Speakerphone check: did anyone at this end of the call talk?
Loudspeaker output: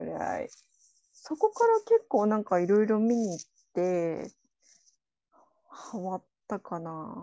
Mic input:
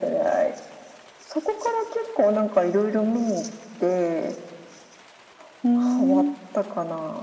Yes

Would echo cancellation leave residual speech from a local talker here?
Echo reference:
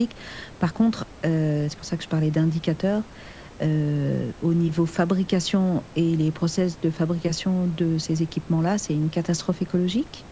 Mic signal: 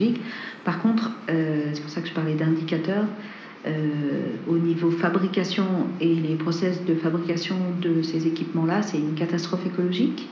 No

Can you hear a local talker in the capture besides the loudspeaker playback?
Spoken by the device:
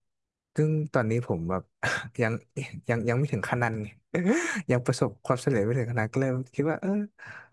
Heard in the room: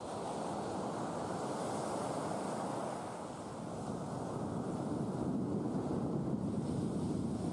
No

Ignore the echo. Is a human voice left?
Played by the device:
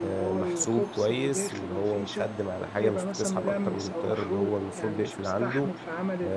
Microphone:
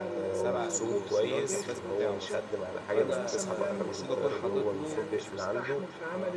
Yes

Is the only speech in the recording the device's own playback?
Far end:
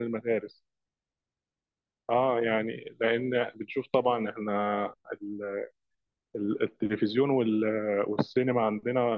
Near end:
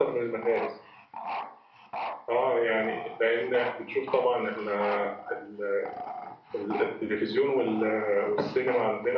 Yes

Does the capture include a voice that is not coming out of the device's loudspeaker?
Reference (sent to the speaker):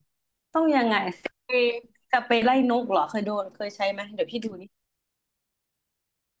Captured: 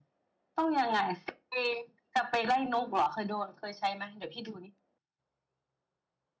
No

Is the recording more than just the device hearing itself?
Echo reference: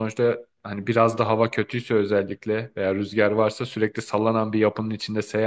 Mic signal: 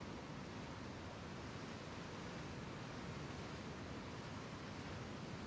No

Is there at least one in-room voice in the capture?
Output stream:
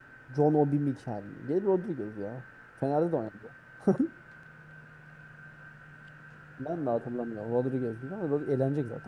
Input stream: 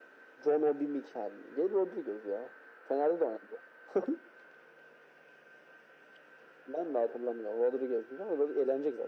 No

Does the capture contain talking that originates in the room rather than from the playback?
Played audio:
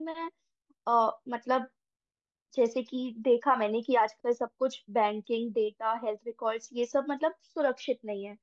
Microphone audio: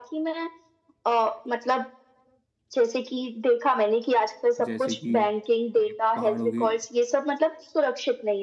Yes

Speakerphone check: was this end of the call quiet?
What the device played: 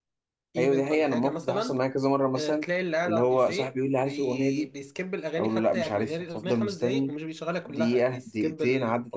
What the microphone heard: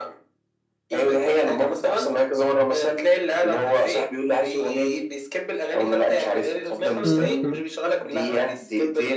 No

